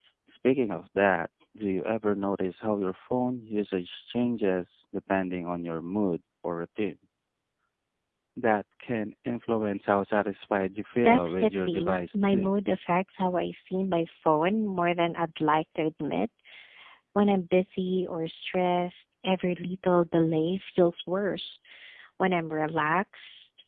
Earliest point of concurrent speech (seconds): 11 s

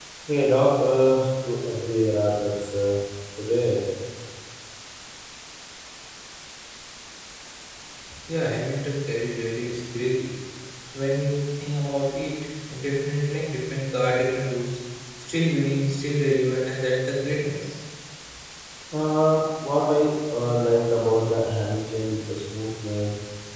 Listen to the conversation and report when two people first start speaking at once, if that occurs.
none

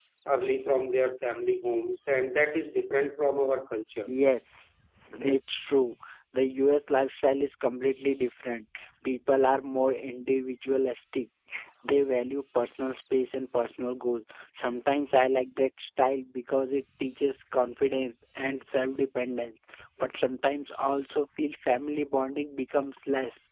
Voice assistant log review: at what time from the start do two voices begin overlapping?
none

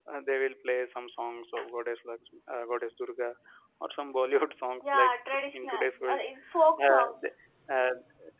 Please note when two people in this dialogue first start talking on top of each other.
5 s

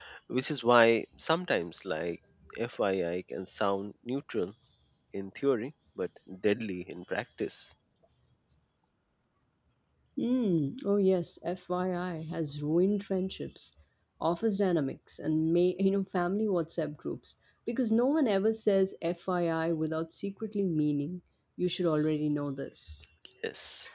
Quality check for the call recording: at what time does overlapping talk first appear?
none

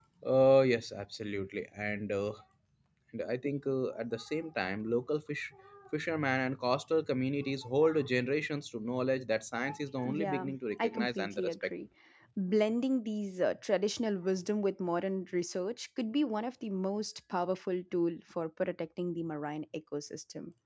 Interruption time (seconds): 10 s

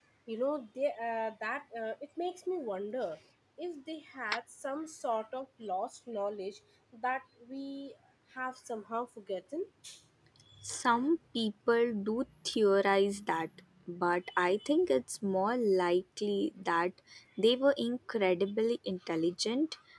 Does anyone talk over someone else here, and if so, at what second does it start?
none

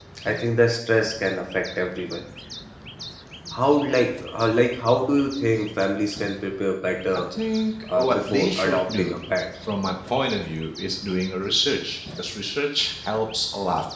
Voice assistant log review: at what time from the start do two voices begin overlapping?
8 s

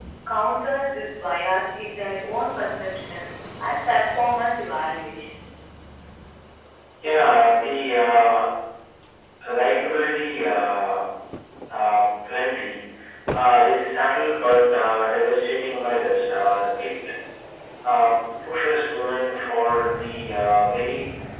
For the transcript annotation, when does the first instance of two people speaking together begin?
none

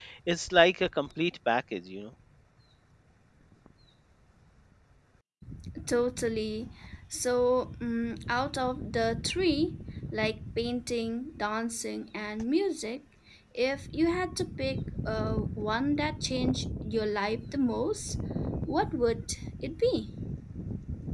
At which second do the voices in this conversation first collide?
none

